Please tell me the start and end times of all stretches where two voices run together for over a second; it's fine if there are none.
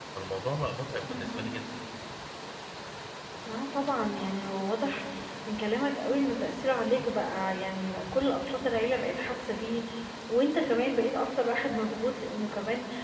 none

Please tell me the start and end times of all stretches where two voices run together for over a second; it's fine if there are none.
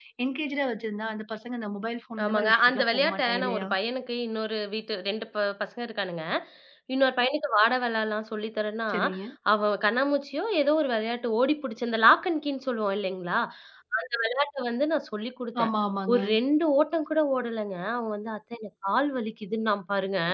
2.2-3.7

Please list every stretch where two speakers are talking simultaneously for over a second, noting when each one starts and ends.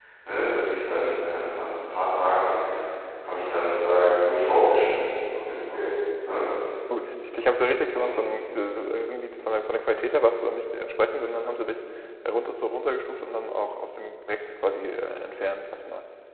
none

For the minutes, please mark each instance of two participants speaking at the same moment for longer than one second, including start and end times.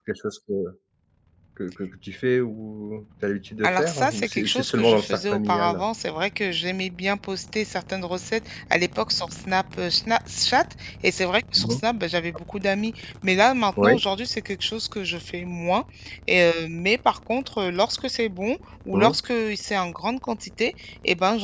3.6-5.9

